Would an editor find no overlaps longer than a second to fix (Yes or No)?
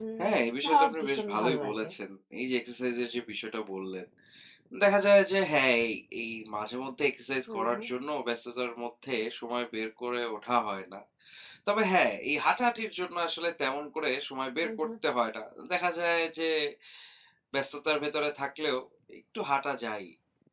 No